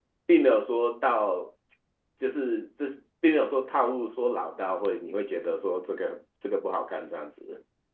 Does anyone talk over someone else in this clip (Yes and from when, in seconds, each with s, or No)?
No